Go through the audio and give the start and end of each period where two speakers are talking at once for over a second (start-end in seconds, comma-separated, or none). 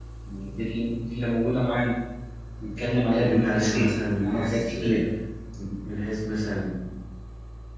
3.1-4.8